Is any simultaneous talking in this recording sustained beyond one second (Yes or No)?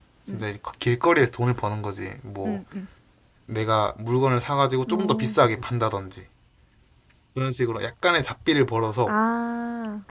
No